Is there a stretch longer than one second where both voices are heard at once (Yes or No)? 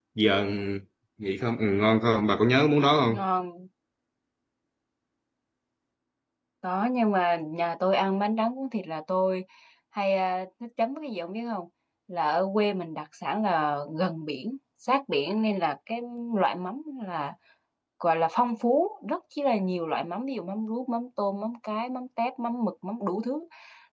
No